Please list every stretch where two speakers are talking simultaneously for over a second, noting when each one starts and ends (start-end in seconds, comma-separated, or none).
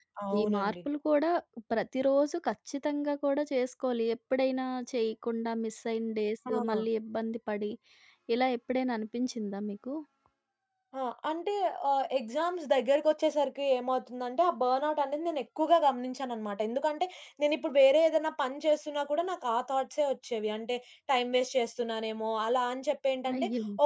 none